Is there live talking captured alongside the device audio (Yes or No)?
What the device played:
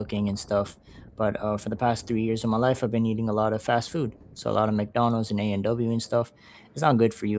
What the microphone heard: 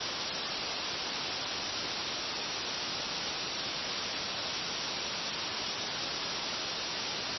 No